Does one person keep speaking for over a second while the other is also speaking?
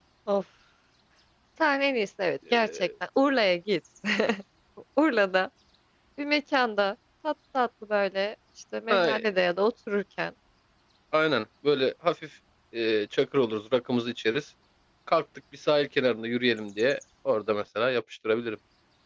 No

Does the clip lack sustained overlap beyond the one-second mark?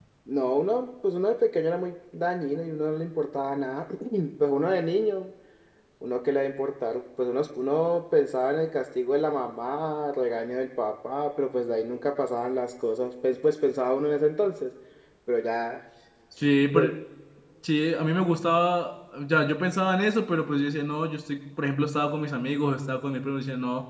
Yes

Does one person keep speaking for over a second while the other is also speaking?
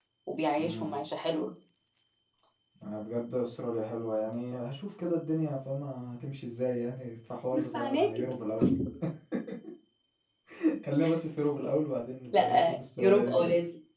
Yes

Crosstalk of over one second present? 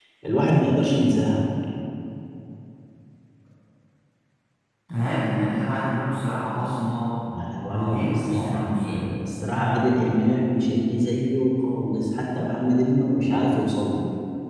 Yes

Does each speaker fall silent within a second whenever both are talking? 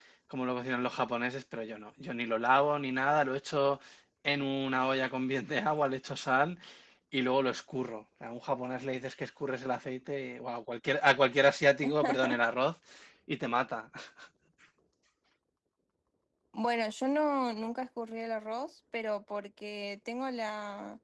Yes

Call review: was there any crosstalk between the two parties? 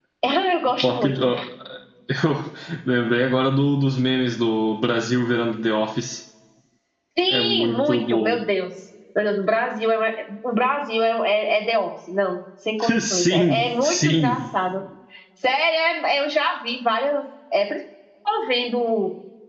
Yes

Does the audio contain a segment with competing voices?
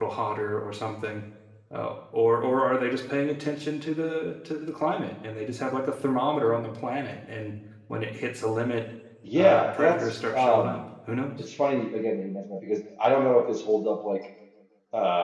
Yes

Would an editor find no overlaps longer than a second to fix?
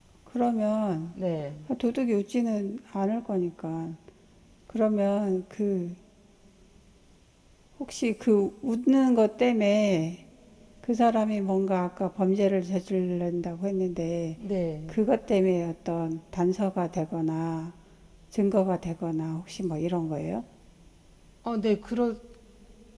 Yes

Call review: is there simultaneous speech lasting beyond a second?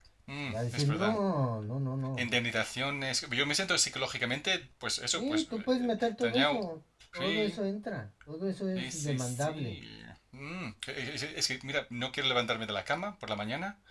Yes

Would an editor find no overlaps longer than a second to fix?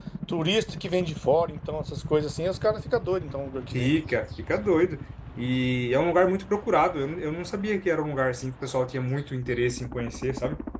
Yes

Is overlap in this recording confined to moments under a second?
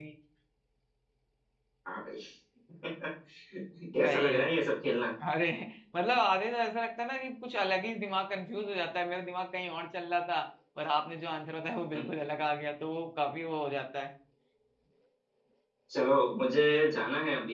Yes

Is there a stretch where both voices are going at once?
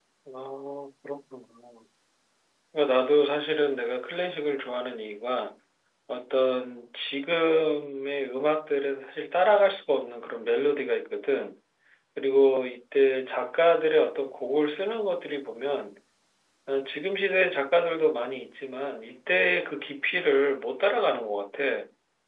No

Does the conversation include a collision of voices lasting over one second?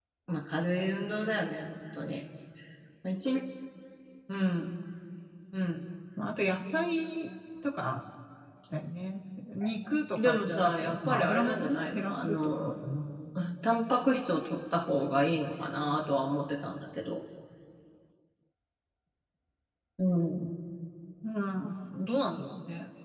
Yes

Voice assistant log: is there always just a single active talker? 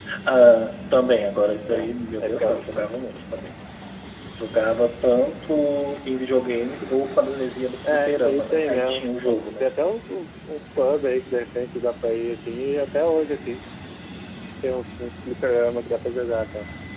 No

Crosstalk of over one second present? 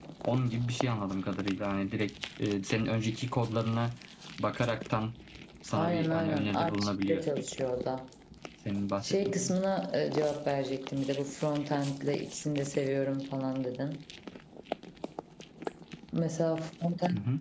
Yes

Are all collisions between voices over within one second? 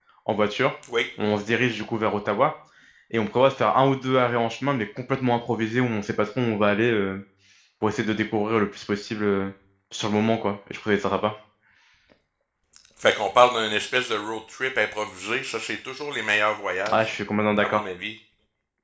Yes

